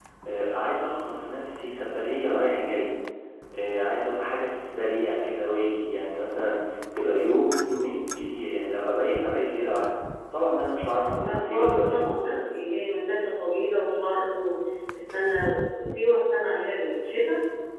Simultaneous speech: Yes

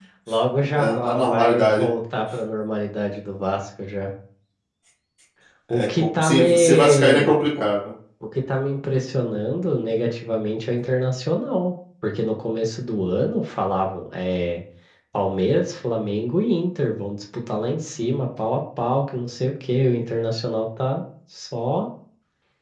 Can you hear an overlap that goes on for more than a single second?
Yes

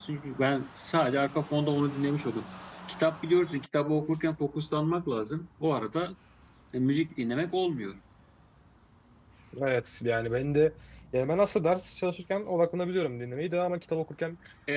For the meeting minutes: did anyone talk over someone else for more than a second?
No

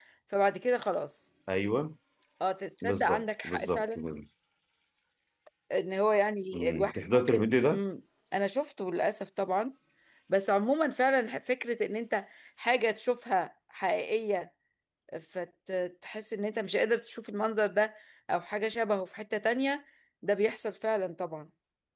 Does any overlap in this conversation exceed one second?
Yes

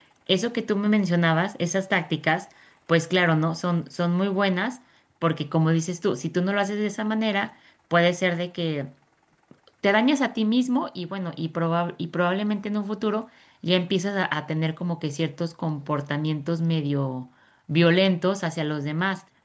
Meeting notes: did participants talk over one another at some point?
No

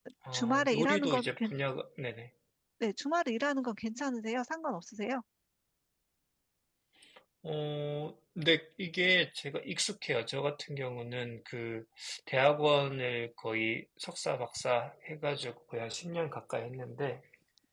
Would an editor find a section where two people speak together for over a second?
Yes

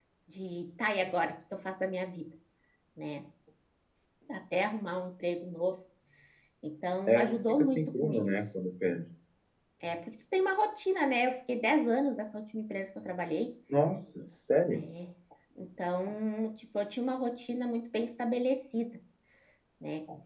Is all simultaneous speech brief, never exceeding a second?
No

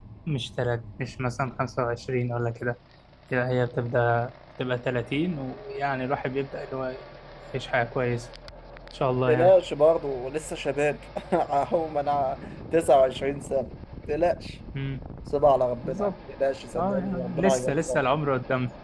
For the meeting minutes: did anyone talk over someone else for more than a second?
Yes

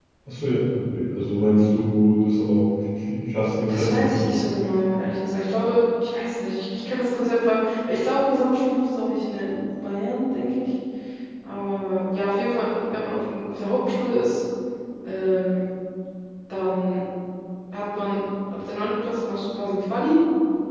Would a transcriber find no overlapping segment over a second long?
Yes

